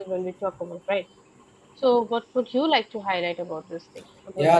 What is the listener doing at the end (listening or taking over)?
taking over